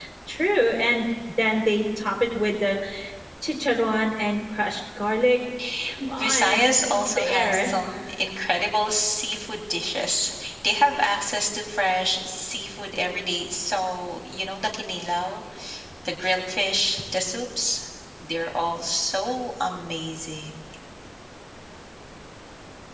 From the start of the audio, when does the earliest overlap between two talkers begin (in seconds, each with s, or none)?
6.2 s